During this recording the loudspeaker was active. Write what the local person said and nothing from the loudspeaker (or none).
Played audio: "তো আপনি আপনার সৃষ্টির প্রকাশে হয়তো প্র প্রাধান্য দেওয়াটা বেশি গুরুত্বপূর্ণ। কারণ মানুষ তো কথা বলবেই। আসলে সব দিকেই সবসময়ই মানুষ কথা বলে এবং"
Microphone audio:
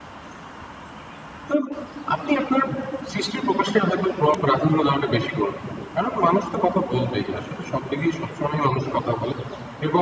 none